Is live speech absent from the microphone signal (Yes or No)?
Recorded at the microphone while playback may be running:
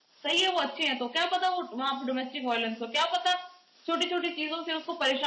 No